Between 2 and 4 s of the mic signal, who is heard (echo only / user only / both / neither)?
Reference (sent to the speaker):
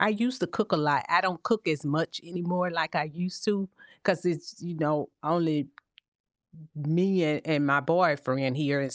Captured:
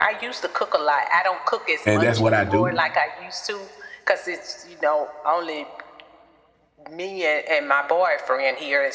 both